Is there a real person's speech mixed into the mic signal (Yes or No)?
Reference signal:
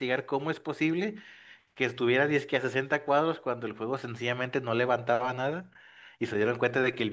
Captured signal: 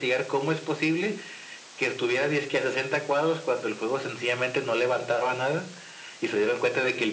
No